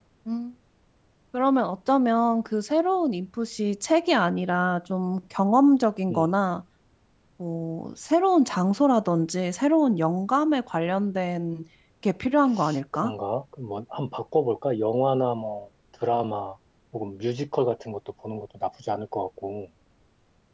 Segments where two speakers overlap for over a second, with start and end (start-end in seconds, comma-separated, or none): none